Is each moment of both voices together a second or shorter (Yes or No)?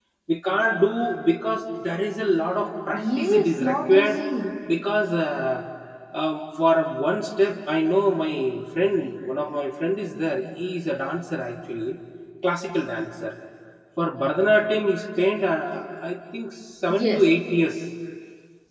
No